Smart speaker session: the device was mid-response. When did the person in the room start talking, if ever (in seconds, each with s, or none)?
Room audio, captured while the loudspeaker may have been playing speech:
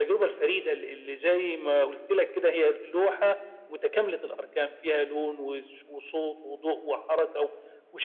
none